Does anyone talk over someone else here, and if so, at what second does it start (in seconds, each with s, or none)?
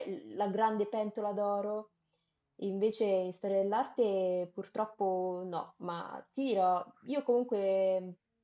none